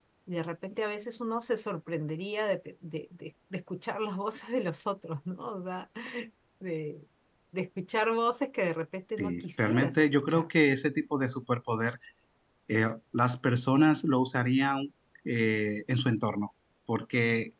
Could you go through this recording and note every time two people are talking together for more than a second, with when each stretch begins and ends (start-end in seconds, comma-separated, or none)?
9.2-10.5